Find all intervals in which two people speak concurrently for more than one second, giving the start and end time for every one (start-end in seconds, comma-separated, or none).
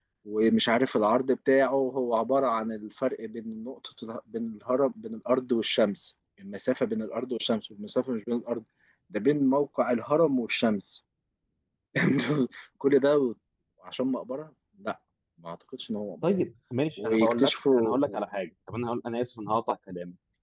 17.0-18.2